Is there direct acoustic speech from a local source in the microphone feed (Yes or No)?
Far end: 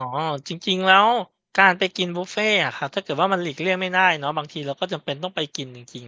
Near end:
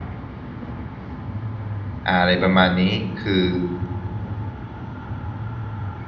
Yes